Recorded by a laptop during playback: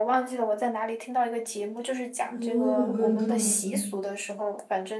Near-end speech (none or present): present